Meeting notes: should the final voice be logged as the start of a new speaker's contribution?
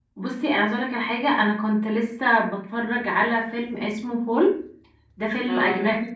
No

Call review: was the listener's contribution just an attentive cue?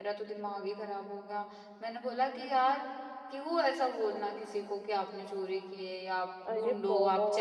No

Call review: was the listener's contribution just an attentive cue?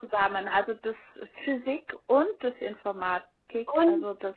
No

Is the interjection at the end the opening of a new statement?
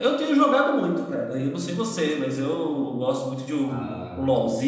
No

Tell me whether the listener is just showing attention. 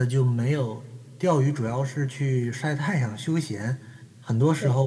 Yes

